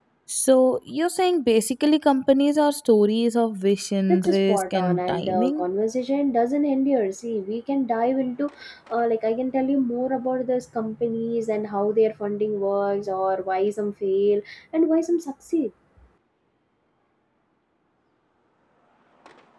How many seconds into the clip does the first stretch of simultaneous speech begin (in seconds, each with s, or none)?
4.1 s